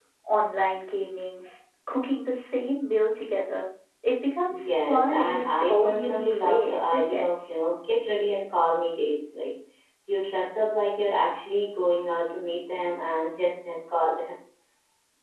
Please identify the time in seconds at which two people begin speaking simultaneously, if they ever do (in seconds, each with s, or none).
4.5 s